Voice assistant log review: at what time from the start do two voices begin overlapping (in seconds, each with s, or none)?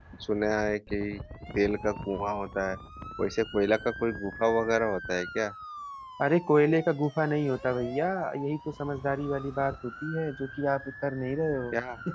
none